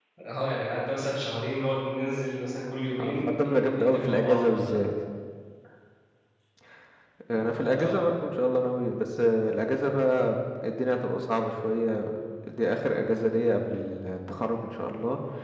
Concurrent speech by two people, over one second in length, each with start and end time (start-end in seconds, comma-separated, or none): 3.0-4.9